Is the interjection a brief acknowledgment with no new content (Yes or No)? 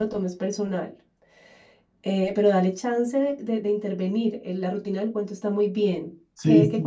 No